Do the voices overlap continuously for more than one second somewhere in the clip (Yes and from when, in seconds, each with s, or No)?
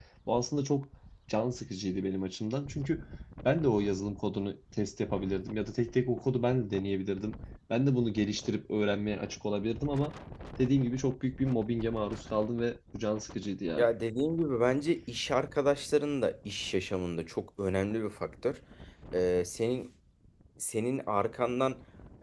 No